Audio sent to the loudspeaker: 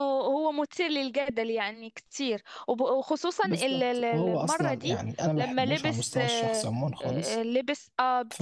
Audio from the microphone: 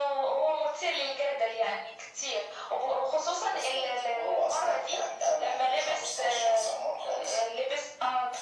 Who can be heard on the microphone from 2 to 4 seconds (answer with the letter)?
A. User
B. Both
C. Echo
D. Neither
C